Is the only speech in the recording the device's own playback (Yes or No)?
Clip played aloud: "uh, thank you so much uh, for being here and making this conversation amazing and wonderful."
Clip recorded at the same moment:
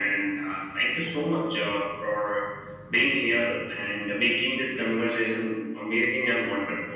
Yes